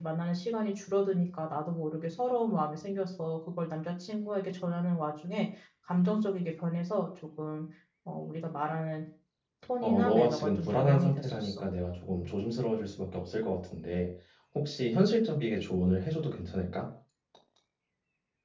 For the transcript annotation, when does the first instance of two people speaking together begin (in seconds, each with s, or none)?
9.8 s